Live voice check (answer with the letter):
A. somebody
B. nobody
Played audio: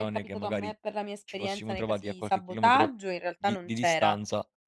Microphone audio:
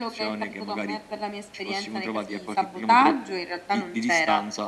B